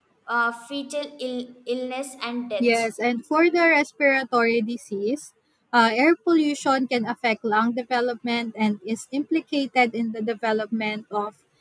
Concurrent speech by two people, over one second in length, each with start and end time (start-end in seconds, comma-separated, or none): none